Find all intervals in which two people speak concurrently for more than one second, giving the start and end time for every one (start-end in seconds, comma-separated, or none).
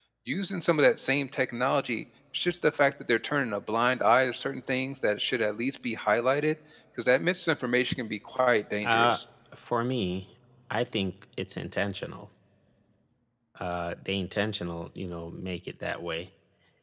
none